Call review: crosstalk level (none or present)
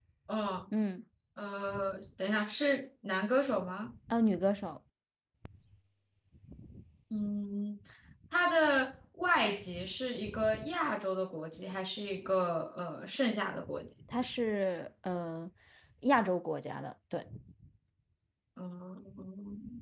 none